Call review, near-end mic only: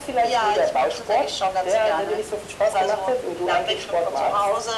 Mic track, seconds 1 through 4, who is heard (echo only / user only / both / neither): echo only